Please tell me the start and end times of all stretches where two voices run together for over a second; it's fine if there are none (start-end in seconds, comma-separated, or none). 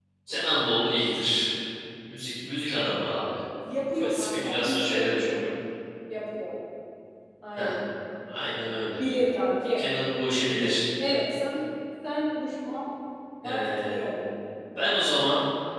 4.0-5.4